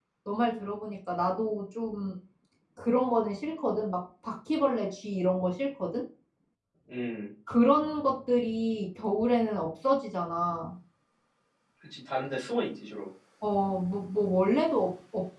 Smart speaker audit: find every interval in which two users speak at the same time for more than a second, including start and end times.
none

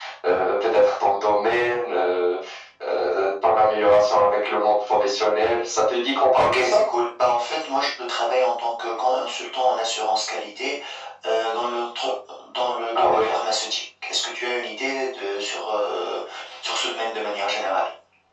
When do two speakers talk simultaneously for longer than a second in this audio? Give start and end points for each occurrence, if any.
none

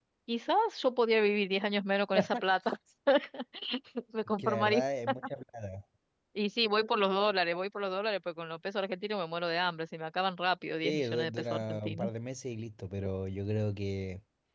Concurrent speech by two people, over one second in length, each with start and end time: 10.8-12.1

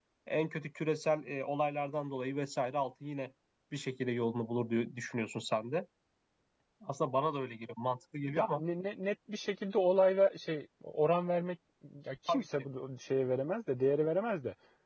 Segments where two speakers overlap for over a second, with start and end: none

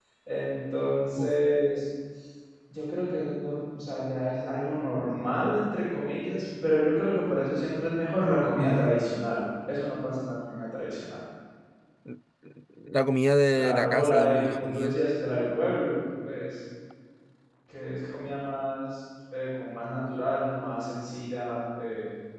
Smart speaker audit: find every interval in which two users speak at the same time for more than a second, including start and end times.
13.5-15.0

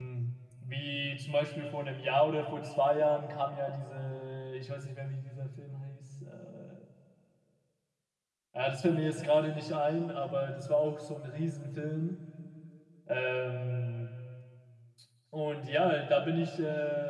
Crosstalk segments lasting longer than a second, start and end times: none

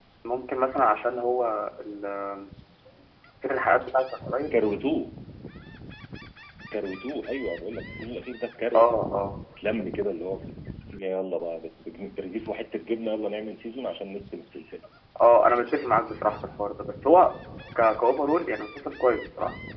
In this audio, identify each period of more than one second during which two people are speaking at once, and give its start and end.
none

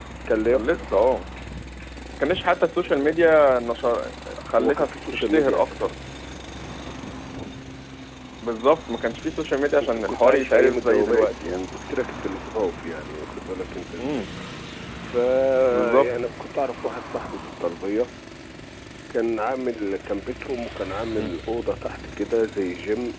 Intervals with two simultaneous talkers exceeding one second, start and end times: 4.6-5.9, 9.8-11.6

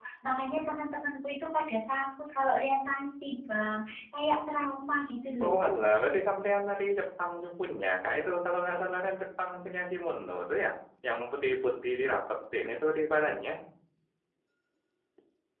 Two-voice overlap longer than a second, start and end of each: none

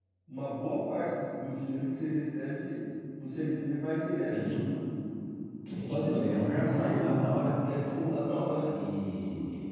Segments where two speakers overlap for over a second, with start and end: 5.9-7.1

